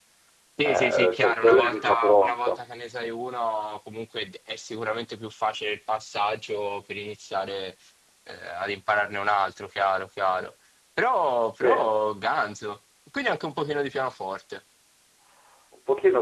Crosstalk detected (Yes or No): Yes